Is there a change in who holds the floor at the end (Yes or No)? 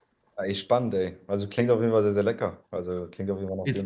Yes